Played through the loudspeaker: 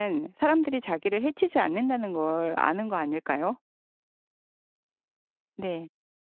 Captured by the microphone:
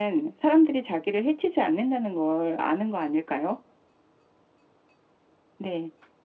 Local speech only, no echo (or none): none